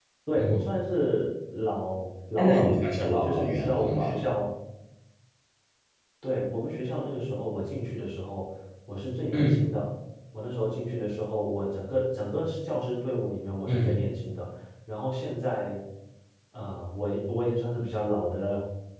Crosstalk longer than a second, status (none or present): present